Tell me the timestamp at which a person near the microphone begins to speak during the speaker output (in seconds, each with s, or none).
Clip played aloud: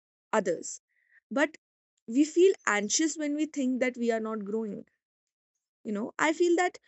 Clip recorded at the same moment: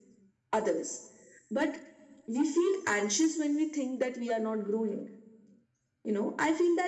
none